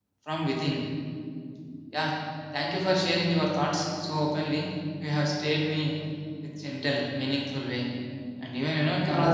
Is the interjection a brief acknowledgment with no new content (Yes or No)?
No